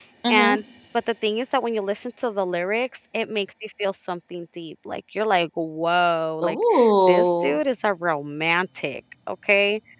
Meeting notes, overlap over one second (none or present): none